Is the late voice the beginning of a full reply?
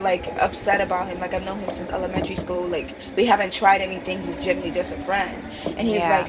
No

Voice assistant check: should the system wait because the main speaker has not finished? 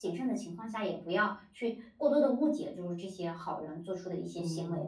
No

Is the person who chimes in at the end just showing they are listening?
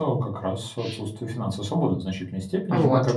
Yes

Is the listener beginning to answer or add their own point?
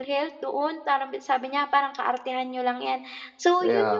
No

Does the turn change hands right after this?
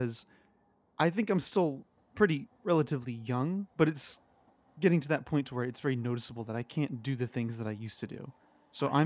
No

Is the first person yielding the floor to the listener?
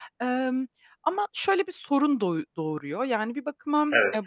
No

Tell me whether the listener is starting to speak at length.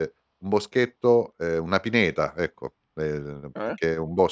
No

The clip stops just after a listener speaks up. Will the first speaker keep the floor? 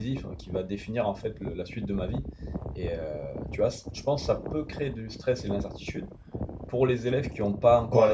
No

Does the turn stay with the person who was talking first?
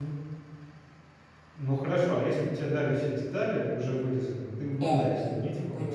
No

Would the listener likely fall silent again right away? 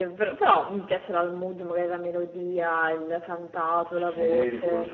No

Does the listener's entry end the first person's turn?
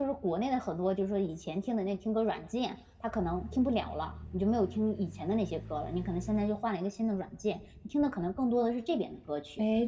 Yes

